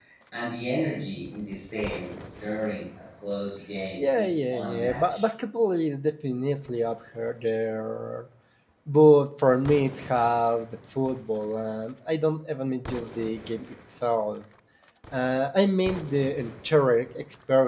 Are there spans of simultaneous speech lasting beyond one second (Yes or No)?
Yes